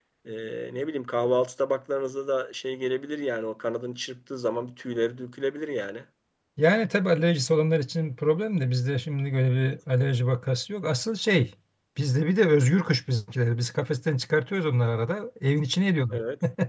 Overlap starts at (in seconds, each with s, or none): none